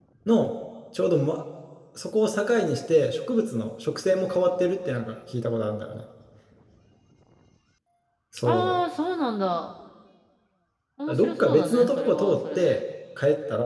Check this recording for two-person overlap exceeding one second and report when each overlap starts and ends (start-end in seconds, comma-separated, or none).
11.1-12.8